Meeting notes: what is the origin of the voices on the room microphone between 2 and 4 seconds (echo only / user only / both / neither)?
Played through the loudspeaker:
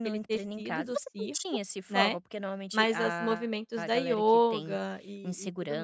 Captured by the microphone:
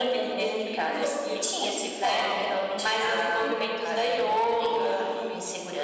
both